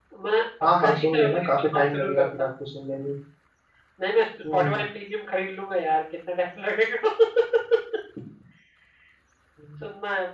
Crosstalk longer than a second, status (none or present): present